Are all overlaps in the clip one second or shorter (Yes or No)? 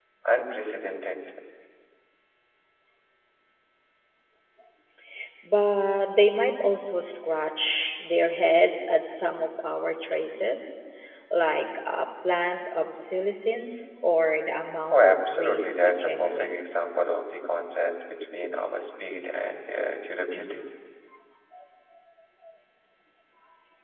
No